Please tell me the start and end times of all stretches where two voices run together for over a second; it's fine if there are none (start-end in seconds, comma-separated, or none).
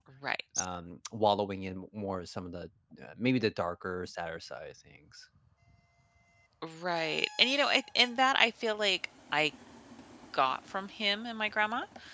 none